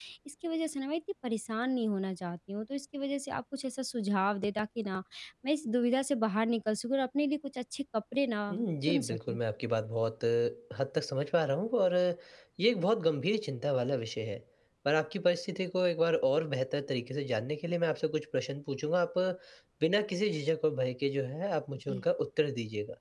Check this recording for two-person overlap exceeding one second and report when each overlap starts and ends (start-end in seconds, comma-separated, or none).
none